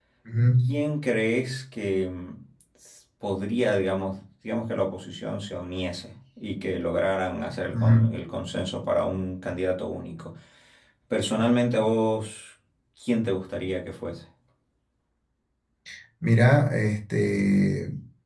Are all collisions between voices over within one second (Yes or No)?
Yes